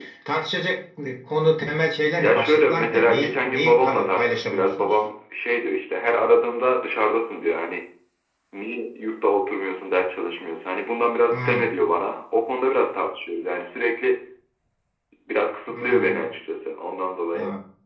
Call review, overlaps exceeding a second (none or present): present